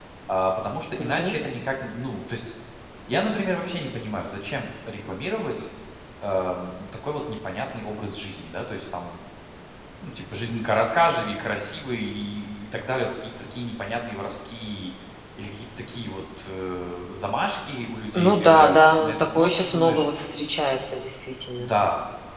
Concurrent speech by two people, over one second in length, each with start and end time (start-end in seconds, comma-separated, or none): 18.1-20.1